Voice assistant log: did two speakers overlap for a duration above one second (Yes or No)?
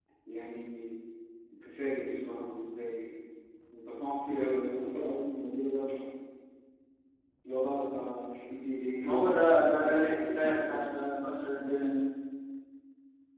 Yes